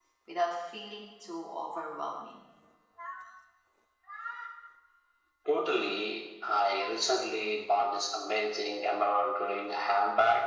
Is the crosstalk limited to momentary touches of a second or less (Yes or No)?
Yes